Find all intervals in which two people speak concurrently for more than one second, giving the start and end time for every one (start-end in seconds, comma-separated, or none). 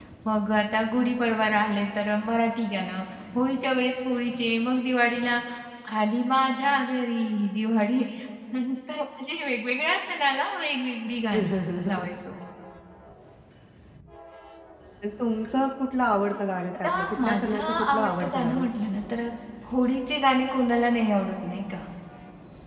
16.8-18.7